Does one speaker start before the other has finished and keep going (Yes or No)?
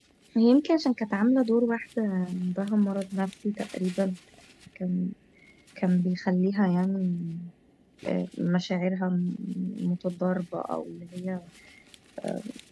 No